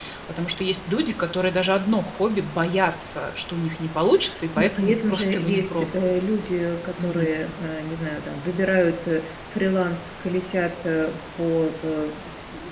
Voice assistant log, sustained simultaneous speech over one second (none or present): present